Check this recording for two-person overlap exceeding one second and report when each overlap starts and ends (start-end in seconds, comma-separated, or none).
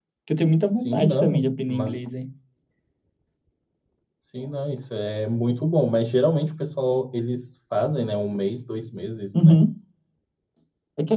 0.8-2.0